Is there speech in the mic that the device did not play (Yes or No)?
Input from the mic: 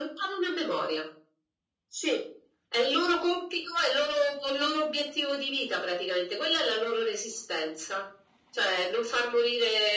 No